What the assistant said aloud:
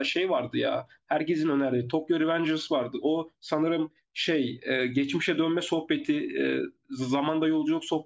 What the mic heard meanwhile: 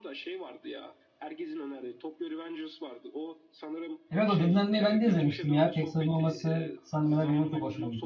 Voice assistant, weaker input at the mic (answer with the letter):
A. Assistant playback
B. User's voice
A